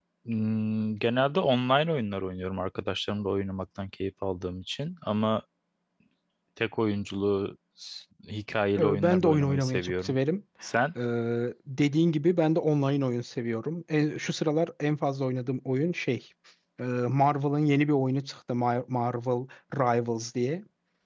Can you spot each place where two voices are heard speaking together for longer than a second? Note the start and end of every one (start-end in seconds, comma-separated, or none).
8.8-10.2